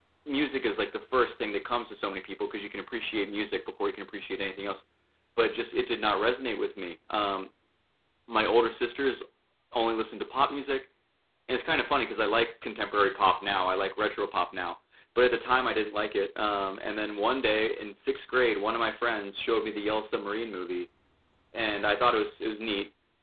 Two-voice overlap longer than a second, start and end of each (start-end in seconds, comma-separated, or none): none